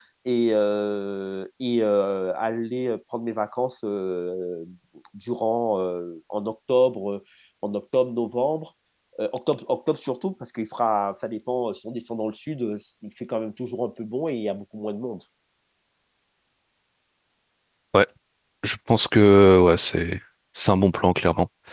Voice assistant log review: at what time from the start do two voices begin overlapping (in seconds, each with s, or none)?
none